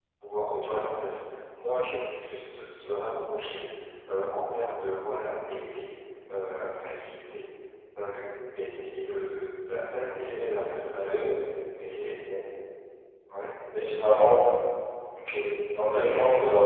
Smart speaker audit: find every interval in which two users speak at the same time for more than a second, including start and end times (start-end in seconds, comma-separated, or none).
none